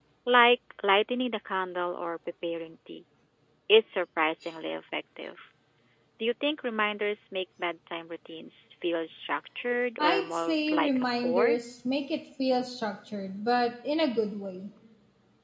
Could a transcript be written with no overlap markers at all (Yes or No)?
No